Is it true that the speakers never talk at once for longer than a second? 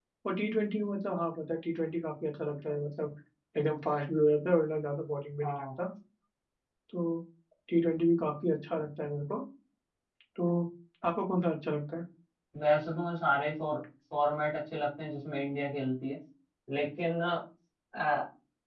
Yes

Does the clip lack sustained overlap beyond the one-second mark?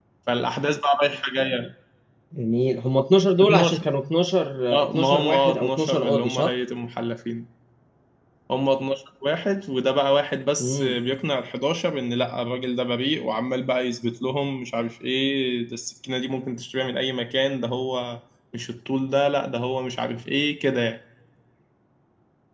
No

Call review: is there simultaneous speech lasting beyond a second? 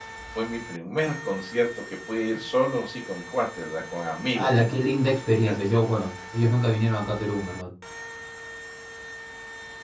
No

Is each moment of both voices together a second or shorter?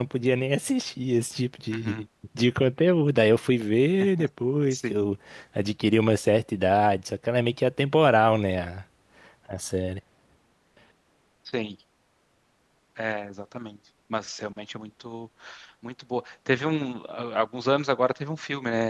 Yes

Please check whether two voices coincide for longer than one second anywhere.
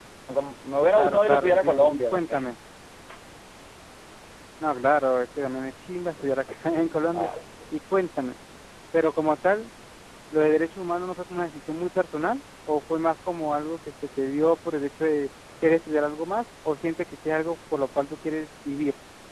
Yes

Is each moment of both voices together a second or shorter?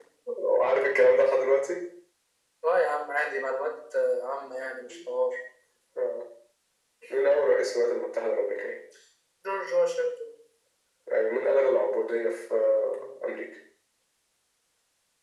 Yes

